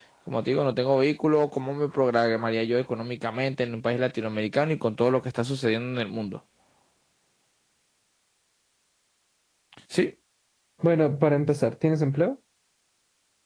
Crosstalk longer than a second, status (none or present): none